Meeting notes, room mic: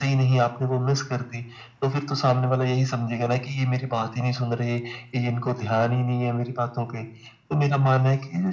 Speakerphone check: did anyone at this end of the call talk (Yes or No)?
No